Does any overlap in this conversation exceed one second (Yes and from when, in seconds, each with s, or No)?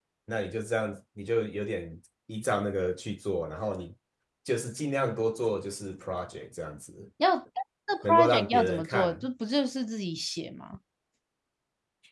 Yes, from 8.0 s